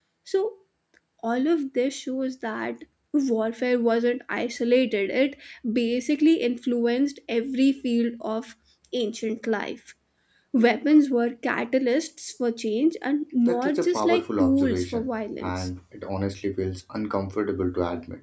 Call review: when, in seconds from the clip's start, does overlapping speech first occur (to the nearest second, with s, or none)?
13 s